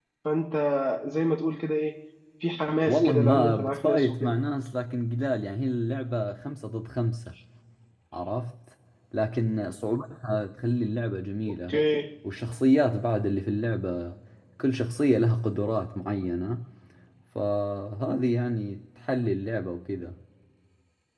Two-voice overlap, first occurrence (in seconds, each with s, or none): 2.9 s